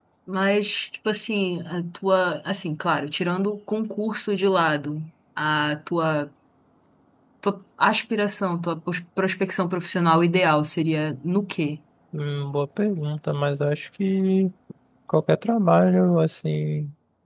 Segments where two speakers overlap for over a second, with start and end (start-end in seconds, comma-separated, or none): none